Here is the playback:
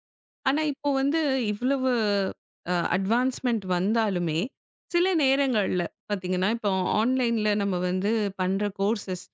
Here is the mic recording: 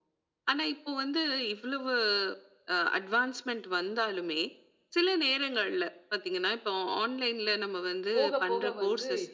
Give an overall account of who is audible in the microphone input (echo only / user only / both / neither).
both